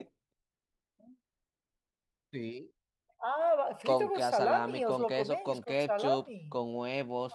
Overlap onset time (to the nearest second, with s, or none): 4 s